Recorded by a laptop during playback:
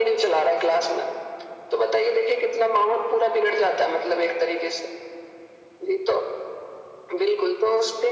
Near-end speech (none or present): none